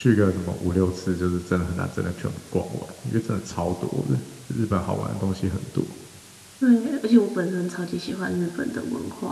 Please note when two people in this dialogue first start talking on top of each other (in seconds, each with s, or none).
none